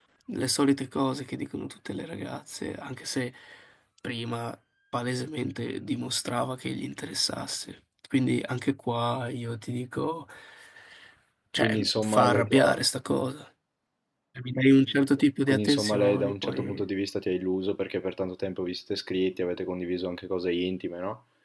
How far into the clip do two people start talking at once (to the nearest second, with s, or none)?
12 s